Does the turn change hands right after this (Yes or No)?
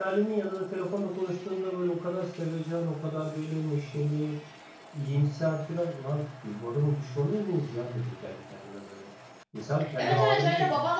Yes